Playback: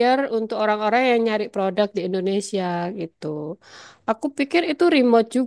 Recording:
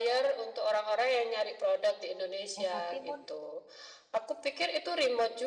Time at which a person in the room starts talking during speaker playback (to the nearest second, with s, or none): 3 s